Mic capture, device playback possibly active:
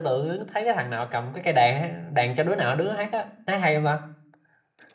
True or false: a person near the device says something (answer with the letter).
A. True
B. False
B